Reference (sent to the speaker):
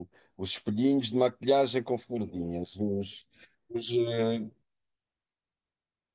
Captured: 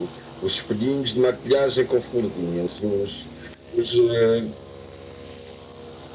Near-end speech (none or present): none